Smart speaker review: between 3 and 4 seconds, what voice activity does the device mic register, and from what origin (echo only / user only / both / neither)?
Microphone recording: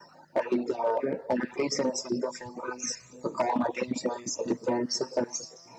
echo only